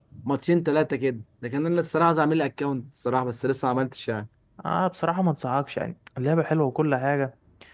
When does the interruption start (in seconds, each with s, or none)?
none